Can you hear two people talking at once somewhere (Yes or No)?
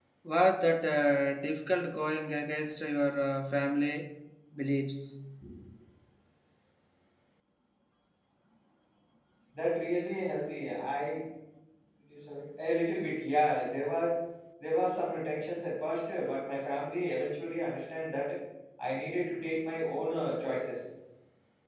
No